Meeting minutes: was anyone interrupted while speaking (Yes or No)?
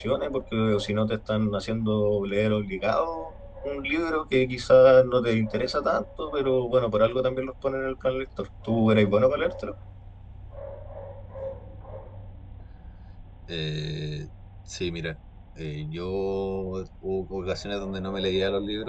No